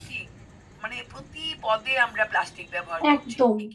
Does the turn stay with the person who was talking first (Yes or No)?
No